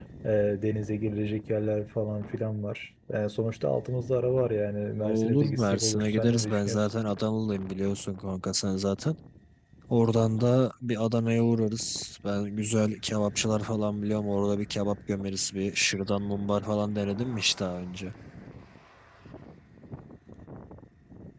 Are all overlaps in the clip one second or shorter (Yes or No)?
No